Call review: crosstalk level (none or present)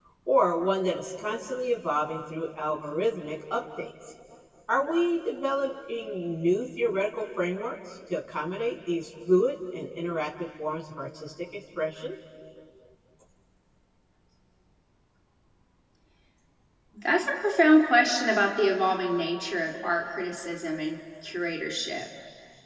none